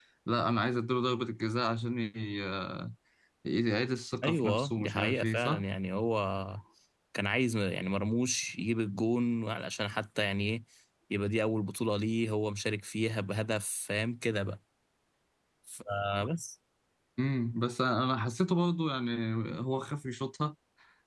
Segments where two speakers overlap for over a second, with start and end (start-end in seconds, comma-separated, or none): 4.2-5.6